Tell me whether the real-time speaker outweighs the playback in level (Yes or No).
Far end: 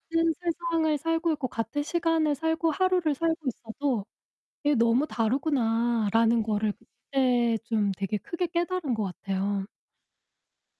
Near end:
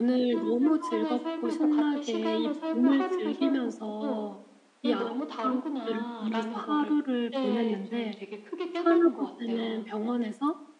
Yes